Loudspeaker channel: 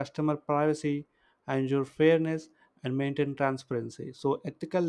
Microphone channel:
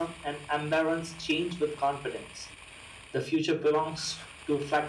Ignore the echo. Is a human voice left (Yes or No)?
Yes